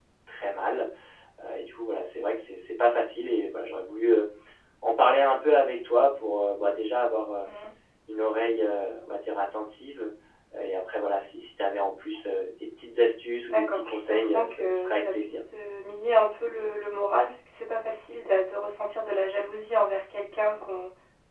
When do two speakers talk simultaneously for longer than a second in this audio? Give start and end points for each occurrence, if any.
13.5-15.3

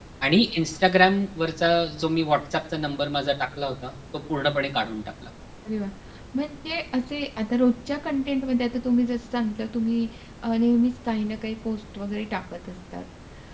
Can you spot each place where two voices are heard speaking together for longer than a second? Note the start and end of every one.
none

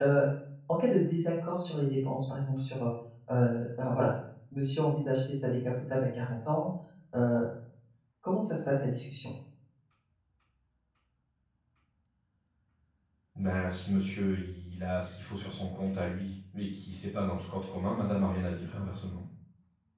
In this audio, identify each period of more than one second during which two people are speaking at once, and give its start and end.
none

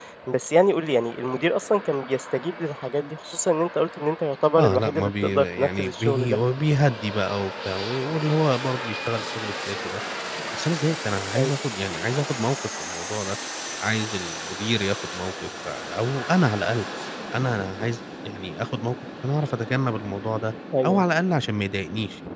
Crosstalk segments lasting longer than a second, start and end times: 4.6-6.4

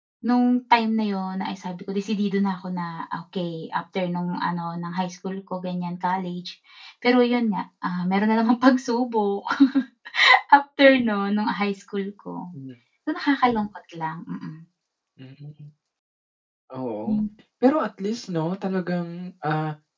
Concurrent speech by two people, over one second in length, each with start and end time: none

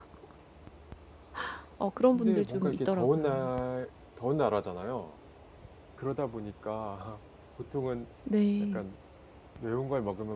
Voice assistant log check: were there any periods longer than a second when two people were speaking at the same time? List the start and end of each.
2.1-3.4

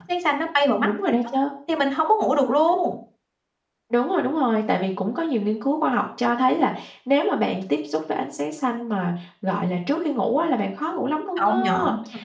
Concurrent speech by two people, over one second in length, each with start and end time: none

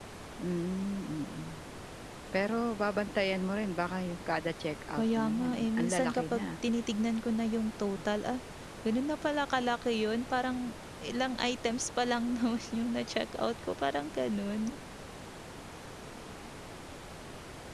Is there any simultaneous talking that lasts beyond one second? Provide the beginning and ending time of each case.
4.9-6.5

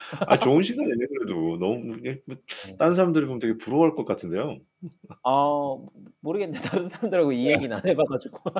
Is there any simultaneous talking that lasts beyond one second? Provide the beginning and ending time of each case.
none

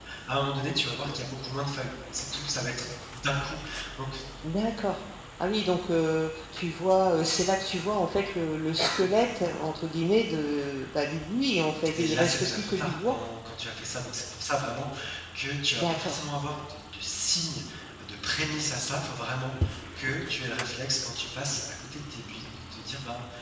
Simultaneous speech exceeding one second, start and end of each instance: 12.0-13.2

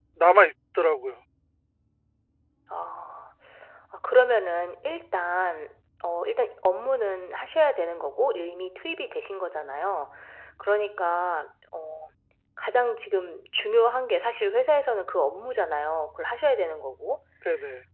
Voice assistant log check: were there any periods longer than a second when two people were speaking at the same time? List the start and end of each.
none

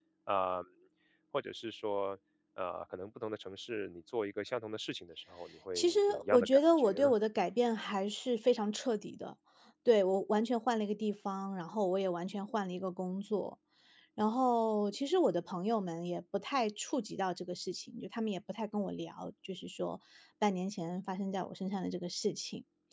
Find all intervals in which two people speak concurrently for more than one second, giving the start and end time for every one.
5.8-7.1

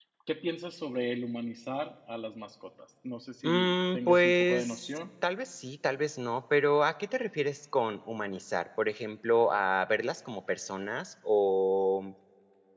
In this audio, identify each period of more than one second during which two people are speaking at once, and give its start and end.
3.4-5.0

